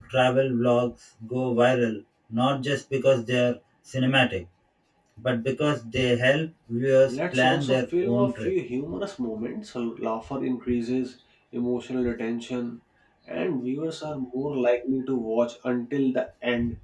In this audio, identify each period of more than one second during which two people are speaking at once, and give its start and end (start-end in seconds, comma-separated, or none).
7.1-8.5